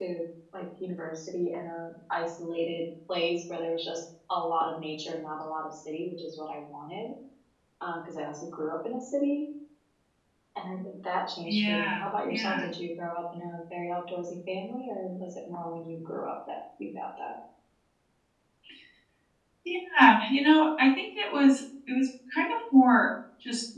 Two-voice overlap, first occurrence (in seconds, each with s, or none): 11.5 s